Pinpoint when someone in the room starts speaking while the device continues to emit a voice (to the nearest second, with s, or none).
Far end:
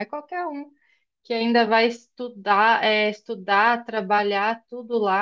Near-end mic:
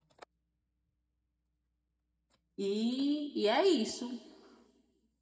3 s